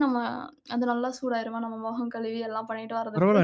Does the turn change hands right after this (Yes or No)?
Yes